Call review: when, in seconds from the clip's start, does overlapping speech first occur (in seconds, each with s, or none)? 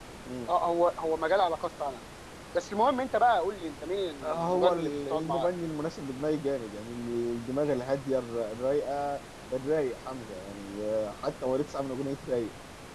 4.2 s